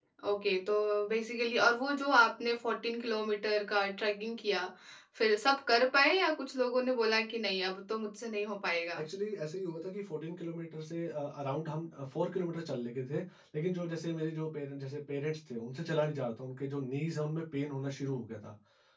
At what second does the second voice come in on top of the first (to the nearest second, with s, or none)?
none